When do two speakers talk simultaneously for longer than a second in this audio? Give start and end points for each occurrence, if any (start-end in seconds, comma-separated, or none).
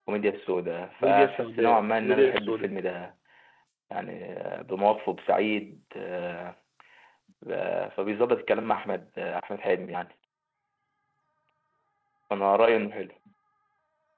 1.0-2.7